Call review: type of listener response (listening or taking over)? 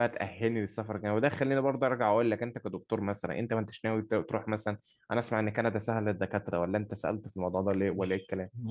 taking over